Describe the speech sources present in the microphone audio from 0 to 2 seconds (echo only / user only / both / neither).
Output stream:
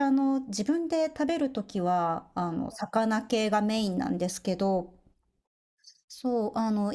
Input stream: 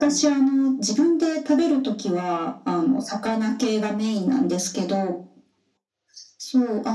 echo only